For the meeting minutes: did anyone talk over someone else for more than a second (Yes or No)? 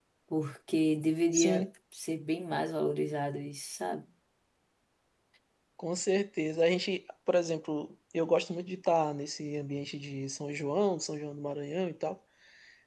No